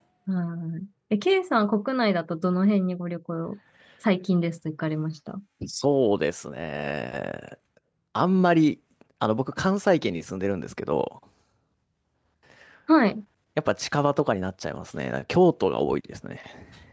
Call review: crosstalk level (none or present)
none